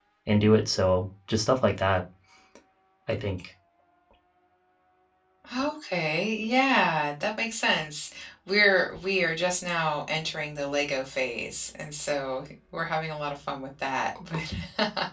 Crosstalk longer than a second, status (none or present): none